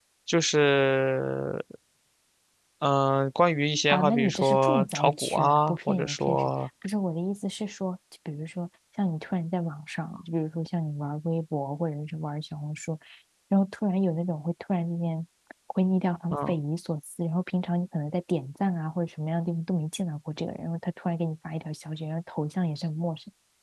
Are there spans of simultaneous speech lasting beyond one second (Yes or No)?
Yes